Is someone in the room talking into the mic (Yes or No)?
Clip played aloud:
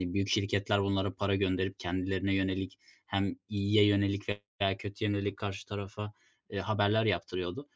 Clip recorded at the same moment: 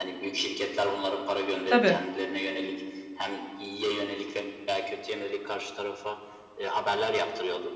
Yes